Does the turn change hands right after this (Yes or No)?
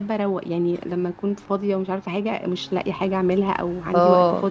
No